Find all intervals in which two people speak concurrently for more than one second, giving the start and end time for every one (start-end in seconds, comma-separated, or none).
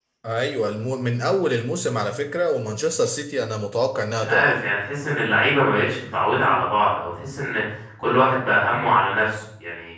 none